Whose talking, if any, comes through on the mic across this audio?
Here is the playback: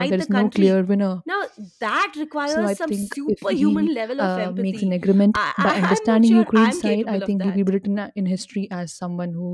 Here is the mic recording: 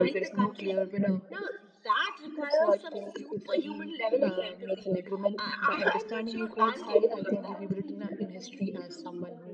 both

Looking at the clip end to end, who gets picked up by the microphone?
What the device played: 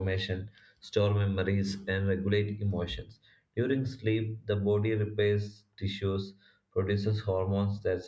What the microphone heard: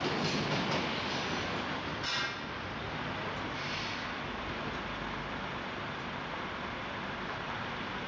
neither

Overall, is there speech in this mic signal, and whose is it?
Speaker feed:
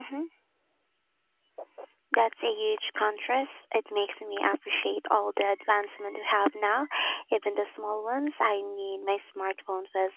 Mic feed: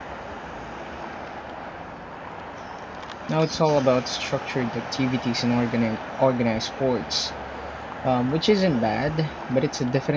user only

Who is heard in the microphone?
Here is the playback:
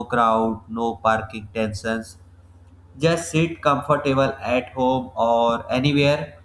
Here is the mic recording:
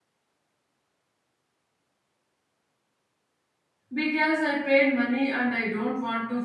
user only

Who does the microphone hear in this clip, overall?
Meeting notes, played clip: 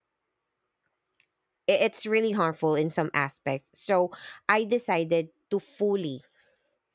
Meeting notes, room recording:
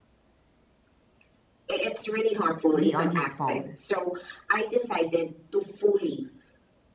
both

